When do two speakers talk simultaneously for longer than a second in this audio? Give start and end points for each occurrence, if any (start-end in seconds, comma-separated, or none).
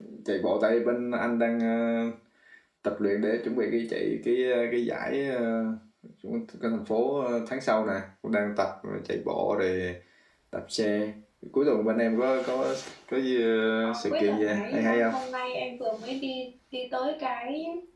13.8-15.1